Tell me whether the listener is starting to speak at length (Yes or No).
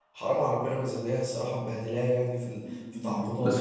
Yes